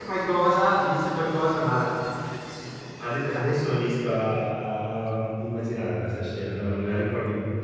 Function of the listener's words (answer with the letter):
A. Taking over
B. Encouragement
B